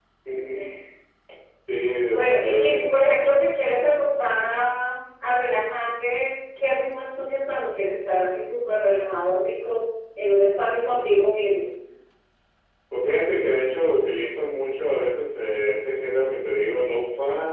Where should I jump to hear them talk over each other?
2 s

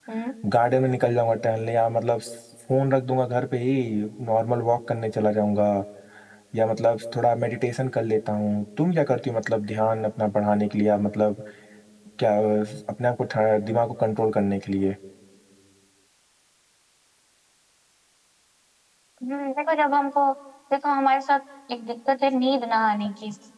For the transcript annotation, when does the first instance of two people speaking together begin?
none

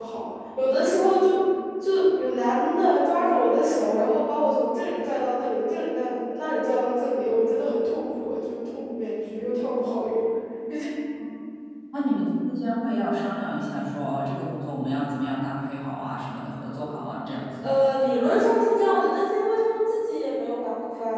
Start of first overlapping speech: none

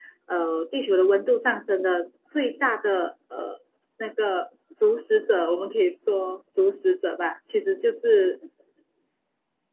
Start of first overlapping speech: none

